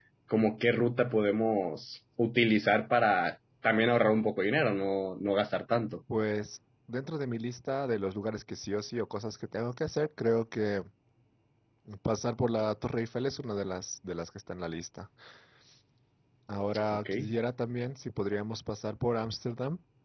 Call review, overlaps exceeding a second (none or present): none